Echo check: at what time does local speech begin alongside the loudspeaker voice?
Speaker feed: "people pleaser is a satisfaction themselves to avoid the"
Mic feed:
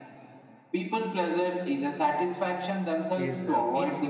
3.2 s

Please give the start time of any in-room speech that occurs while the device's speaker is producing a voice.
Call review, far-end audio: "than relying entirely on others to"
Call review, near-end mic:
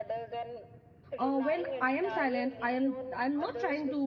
1.2 s

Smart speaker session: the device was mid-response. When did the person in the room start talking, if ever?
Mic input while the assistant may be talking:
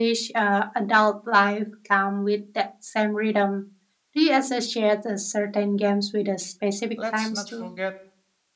6.9 s

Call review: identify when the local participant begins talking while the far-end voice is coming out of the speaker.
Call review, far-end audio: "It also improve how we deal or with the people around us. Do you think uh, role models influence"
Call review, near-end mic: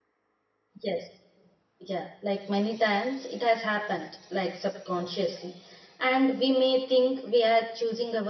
0.8 s

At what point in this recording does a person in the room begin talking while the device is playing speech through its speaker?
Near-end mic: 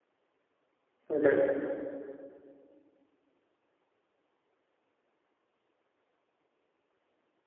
1.1 s

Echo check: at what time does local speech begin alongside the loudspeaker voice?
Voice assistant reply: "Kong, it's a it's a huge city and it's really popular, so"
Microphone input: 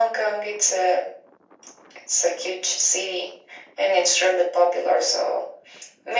none

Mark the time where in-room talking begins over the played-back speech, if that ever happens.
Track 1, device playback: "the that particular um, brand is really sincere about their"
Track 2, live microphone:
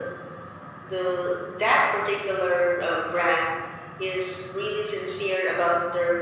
none

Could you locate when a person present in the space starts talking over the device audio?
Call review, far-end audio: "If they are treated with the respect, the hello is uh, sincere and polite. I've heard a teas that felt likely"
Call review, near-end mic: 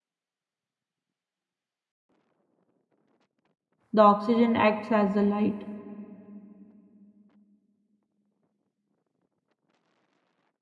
3.9 s

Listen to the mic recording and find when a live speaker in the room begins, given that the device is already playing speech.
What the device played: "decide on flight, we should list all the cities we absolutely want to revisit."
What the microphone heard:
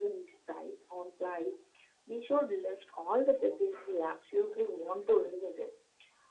none

